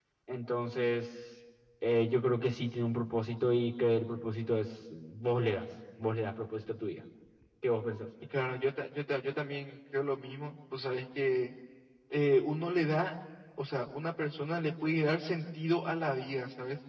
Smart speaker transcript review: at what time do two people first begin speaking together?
none

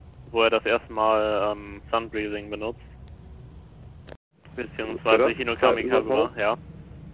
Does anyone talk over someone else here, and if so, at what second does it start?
4.8 s

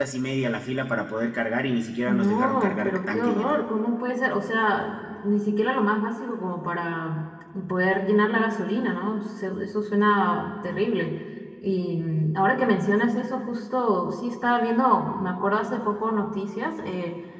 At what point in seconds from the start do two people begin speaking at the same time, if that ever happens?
2.0 s

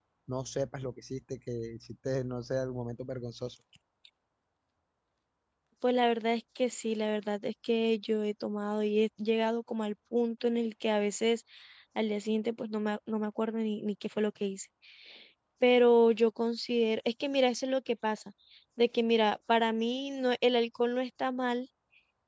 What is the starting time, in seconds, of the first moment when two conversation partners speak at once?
none

